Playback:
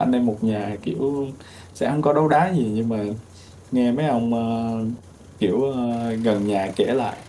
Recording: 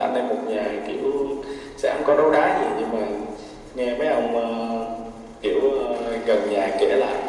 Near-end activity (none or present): none